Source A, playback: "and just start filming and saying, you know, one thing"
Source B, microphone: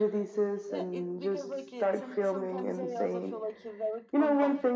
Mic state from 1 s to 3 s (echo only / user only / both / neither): both